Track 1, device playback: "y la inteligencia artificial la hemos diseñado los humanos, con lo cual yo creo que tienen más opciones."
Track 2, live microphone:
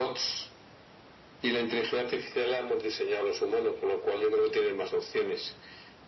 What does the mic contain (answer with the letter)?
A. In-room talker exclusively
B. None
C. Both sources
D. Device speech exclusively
D